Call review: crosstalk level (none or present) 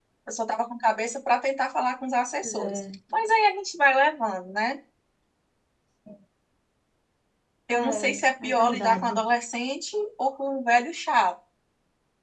present